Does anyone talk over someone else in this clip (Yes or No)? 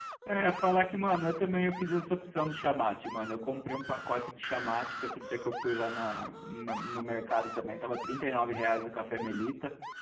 No